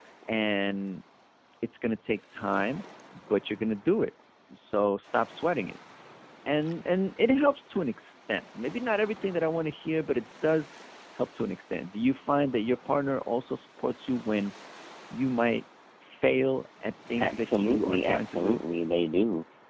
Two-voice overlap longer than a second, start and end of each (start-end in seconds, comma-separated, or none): 17.2-18.6